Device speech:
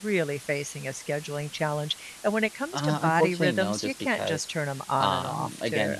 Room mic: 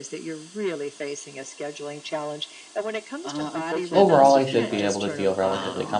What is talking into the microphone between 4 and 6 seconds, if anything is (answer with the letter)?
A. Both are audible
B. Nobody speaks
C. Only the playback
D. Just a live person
A